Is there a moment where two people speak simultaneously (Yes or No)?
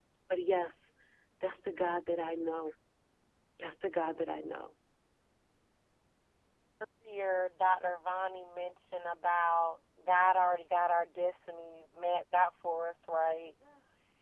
No